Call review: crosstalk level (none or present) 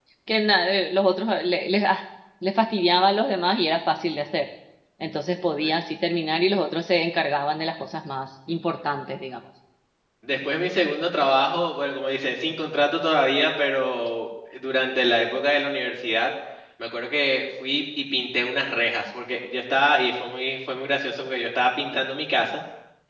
none